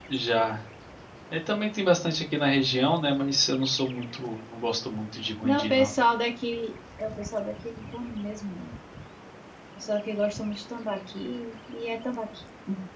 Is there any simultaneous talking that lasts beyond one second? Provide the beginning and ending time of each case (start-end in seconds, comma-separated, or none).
none